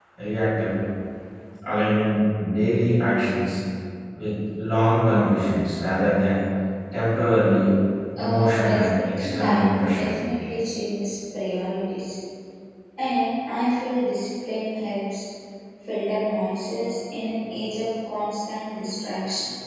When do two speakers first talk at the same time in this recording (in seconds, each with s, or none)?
8.2 s